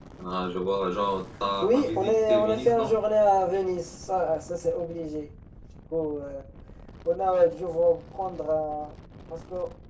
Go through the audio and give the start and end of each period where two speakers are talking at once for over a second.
1.6-3.0

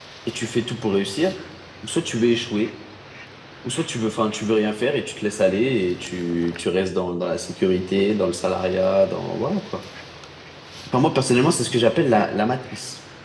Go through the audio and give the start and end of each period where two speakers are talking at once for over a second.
none

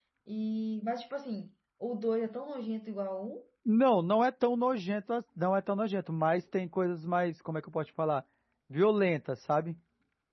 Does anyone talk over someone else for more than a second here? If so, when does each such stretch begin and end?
none

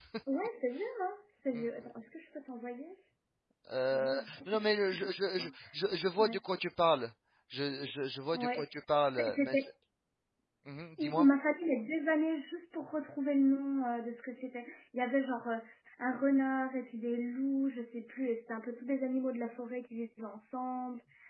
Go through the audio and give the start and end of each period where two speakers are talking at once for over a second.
3.8-5.5

